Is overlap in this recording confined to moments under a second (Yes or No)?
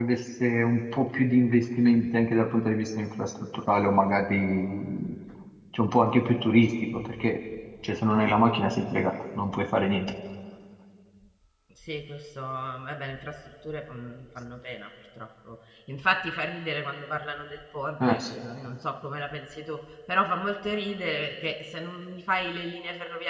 Yes